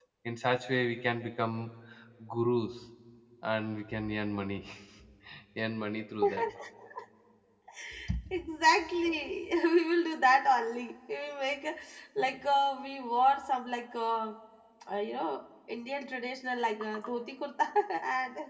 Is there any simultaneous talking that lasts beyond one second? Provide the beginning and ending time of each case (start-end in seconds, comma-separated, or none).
none